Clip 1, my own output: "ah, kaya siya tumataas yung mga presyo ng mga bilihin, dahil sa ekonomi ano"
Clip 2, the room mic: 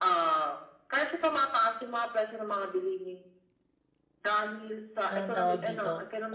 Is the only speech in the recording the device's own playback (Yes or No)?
No